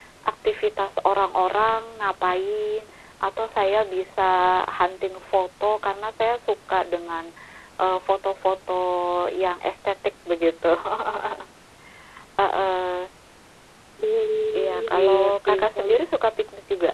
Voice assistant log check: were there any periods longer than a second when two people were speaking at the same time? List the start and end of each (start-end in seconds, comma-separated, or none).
14.5-16.0